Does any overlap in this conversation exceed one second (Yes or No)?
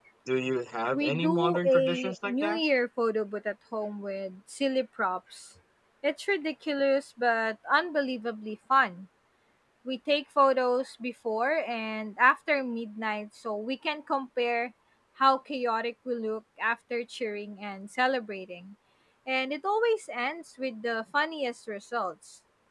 Yes